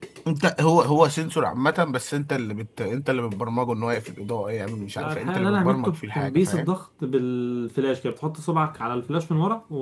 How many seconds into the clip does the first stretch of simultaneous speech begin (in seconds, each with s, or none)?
5.0 s